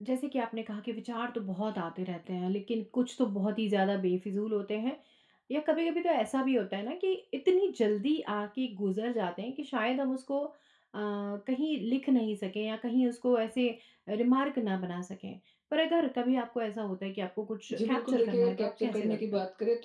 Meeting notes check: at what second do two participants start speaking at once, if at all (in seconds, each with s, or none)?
17.7 s